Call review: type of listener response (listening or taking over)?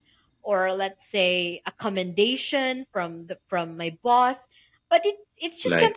listening